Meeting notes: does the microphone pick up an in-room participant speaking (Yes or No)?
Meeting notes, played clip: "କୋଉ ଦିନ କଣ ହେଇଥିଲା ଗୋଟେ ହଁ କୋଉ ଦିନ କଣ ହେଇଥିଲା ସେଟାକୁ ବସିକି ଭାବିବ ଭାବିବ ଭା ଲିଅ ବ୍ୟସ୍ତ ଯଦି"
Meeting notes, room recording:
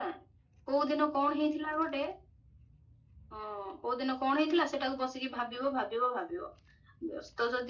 No